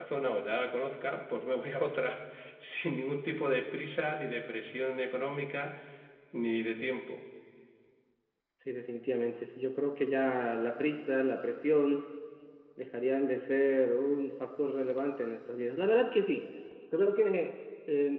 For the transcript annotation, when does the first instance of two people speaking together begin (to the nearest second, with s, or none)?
none